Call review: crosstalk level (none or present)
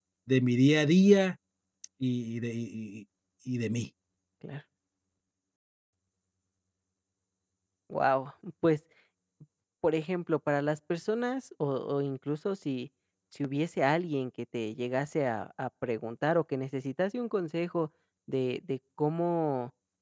none